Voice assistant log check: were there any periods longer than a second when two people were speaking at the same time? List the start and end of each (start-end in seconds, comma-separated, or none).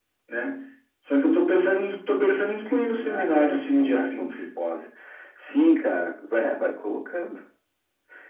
2.8-4.4